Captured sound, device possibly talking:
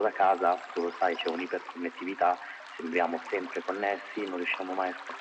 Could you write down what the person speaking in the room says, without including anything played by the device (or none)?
none